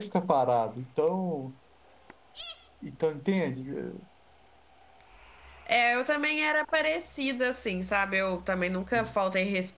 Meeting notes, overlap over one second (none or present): none